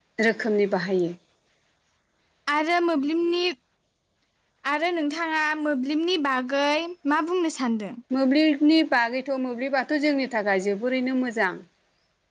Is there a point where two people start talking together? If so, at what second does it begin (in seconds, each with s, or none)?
none